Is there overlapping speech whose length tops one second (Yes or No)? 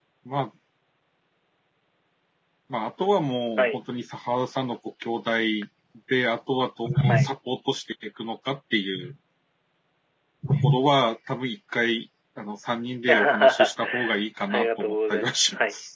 Yes